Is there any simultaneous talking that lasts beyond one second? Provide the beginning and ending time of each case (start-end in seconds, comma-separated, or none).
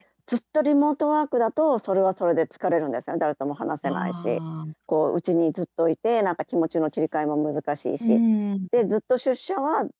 none